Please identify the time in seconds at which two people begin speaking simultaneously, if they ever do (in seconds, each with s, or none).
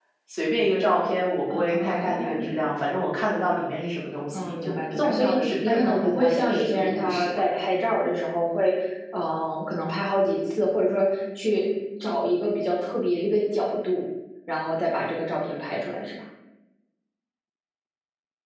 1.5 s